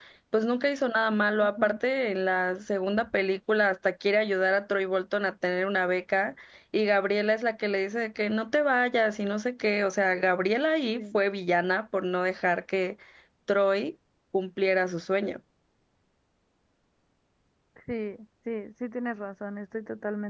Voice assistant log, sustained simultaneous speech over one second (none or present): none